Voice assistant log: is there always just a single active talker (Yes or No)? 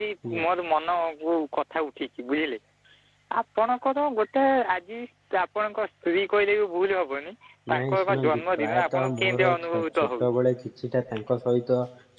No